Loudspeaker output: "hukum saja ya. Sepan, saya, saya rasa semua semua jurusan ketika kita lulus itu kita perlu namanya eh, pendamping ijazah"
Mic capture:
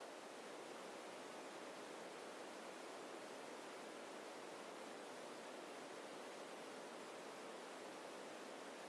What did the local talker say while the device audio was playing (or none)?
none